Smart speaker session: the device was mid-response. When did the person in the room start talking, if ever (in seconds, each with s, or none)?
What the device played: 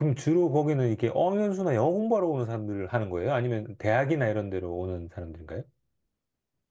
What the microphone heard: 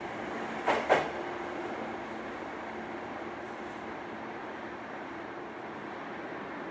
none